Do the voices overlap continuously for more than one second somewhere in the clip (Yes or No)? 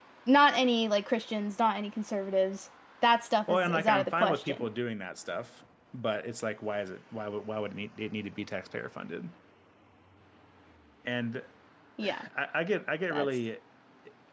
Yes